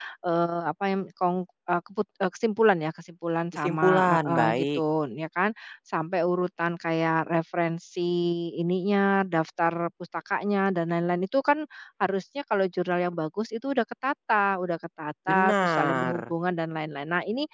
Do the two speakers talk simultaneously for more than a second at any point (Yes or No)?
Yes